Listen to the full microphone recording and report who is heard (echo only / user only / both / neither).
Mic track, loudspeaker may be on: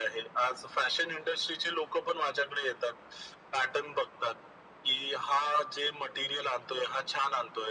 echo only